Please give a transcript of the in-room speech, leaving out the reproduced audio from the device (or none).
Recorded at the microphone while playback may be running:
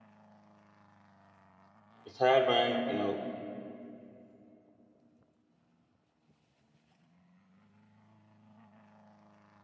The tired mind, you know,